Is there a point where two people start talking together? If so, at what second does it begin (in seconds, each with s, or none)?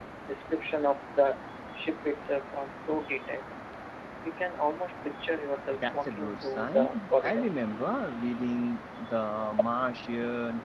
5.7 s